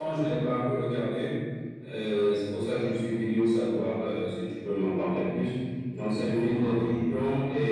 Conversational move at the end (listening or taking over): listening